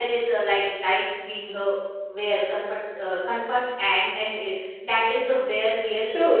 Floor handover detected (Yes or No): Yes